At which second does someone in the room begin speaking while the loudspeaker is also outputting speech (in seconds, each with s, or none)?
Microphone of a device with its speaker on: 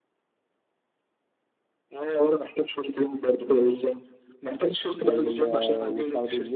5.0 s